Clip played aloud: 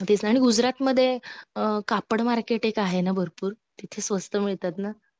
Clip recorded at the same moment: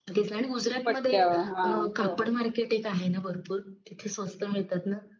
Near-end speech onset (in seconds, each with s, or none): 0.8 s